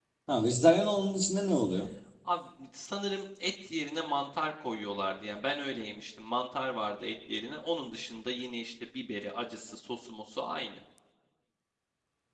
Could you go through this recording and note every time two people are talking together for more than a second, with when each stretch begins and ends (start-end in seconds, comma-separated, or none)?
none